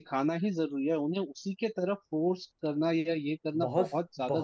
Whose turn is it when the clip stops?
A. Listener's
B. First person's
A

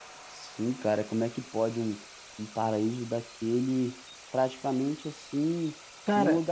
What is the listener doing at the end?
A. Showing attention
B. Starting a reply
A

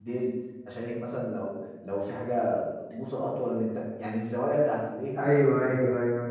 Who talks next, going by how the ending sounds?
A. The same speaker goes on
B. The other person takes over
B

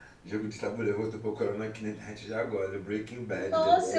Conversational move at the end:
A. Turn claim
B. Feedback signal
A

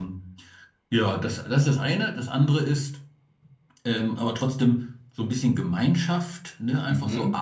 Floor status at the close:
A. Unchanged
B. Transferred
A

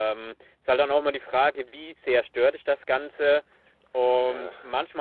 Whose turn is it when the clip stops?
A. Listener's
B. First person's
B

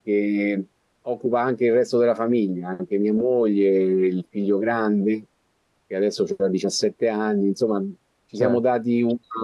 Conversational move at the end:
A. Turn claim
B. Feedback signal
B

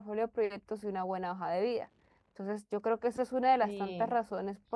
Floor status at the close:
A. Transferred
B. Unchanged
B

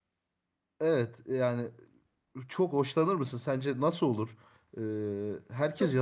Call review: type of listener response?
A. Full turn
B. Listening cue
A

